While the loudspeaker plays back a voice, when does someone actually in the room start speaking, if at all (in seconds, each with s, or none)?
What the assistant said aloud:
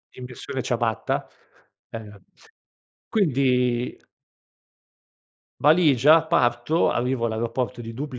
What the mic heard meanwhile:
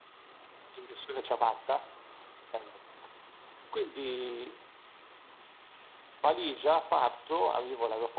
none